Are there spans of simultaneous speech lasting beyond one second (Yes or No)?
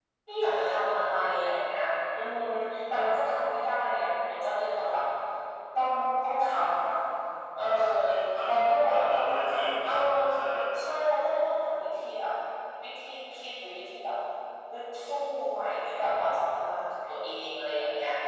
Yes